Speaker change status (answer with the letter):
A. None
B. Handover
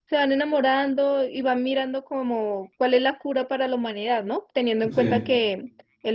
A